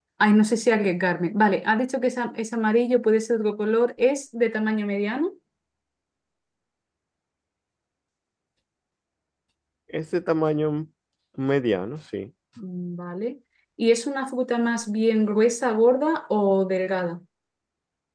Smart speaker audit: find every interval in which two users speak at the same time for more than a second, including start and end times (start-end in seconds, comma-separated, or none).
none